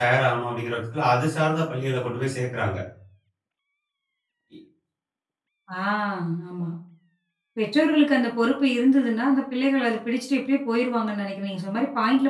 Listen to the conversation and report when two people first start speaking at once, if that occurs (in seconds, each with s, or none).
none